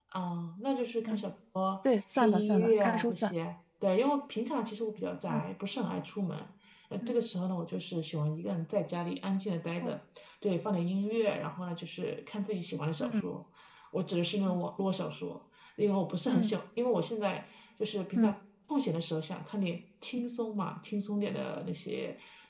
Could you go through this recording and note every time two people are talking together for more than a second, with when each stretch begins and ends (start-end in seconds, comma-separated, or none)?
1.9-3.3